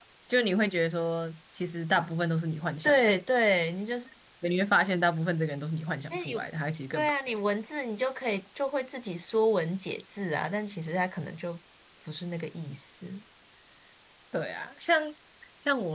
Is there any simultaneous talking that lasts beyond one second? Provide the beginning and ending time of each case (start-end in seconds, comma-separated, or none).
none